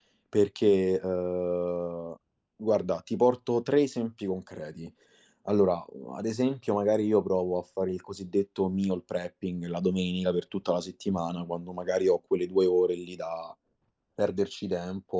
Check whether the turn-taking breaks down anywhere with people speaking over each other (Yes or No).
No